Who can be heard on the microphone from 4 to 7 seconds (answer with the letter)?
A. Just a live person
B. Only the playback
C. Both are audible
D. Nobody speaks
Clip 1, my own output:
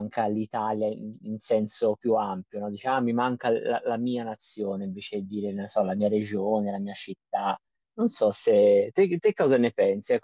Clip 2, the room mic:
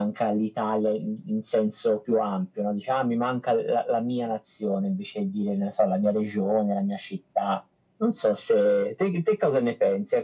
B